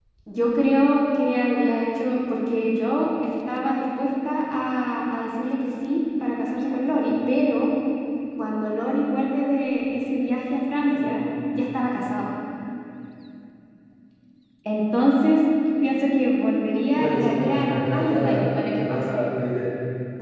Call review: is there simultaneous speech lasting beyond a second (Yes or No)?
Yes